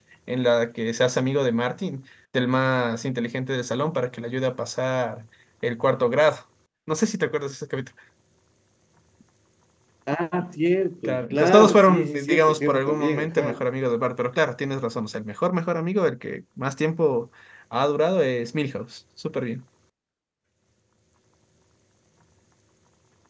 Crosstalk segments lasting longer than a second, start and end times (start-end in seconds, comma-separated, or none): 11.0-13.6